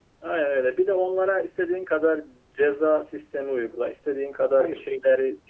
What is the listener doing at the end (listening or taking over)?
listening